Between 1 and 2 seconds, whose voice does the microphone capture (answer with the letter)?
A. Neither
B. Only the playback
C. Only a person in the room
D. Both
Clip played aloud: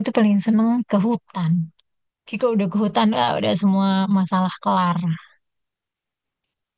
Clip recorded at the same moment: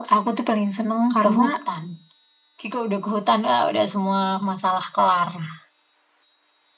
D